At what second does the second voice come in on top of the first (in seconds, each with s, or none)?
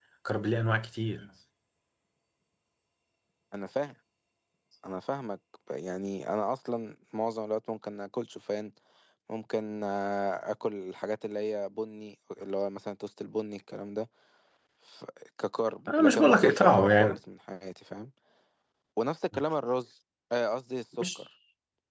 15.9 s